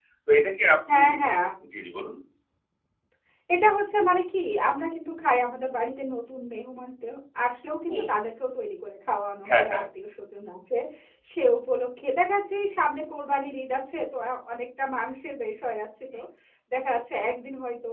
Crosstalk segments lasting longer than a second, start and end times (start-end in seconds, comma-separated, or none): none